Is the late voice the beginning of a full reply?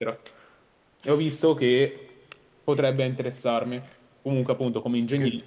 No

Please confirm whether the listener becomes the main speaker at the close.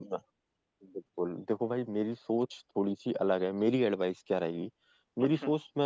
No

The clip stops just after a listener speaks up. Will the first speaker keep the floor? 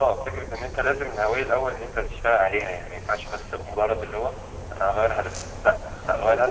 No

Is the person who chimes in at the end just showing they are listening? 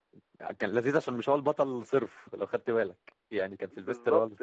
No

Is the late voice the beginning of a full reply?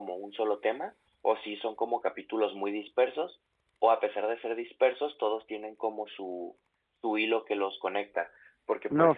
Yes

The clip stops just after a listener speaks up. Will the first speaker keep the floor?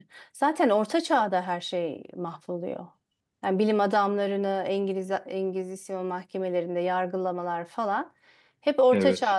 Yes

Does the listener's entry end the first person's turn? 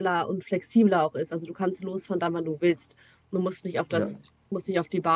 No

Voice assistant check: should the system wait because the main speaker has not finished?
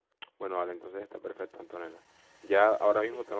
Yes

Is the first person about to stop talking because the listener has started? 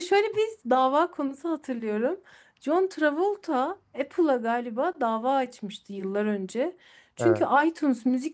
No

